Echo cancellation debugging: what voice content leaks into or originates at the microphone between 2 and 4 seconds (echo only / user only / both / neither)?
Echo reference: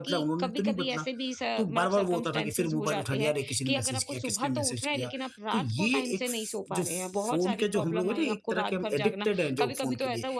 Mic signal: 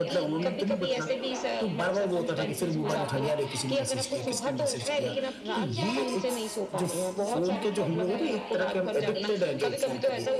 both